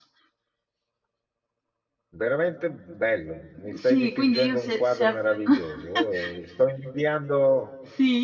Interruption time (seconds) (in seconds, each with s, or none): 3.6 s